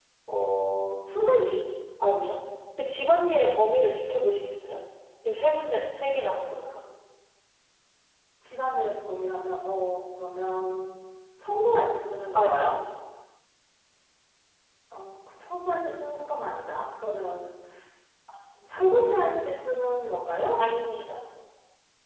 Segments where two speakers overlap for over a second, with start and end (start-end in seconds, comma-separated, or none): none